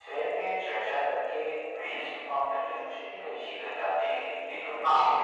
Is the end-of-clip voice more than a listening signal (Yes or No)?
No